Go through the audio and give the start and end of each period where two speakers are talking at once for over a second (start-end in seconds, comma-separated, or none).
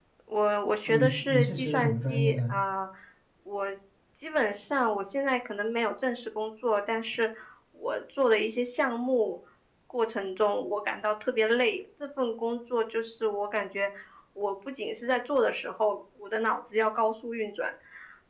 0.9-2.6